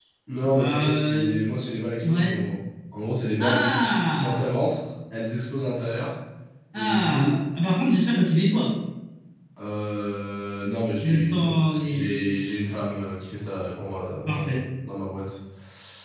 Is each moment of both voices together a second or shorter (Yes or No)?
No